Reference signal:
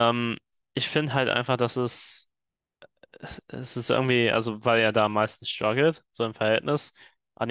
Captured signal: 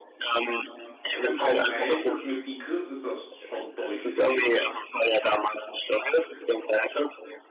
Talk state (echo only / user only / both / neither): both